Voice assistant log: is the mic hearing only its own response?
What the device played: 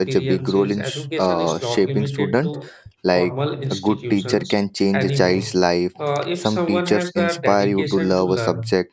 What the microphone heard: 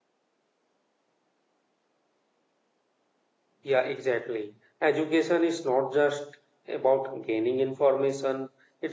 No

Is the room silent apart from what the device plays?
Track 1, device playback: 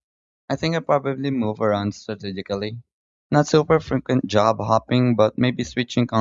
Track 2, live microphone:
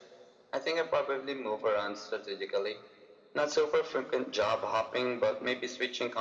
Yes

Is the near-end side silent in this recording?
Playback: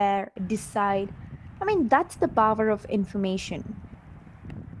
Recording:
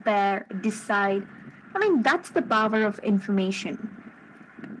Yes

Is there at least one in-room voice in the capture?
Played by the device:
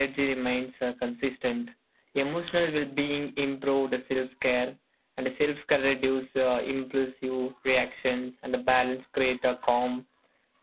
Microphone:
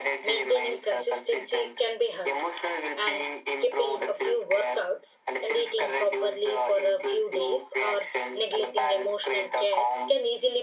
Yes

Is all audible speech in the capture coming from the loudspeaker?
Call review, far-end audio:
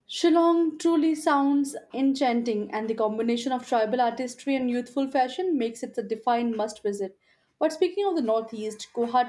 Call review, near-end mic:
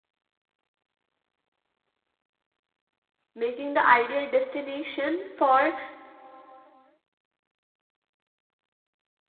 No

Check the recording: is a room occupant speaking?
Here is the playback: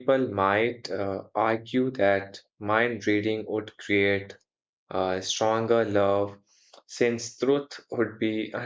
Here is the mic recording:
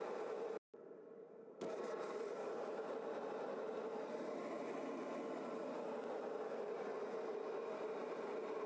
No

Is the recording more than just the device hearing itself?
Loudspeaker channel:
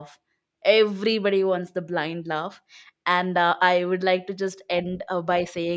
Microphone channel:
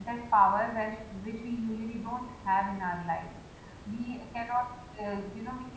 Yes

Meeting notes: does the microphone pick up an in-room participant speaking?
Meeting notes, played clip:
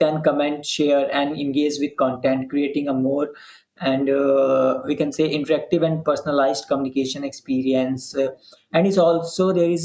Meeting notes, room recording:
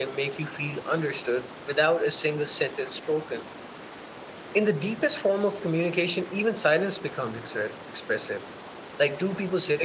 Yes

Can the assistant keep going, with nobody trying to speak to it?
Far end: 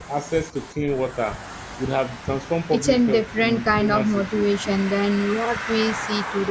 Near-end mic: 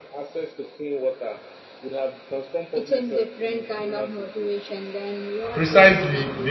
No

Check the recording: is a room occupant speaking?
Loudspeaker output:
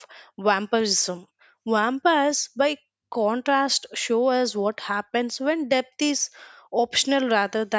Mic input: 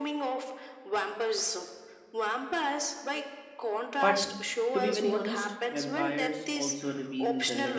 Yes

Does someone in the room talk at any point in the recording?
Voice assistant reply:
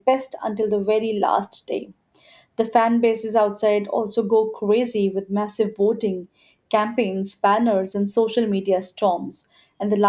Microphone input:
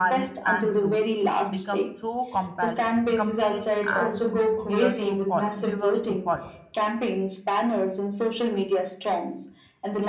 Yes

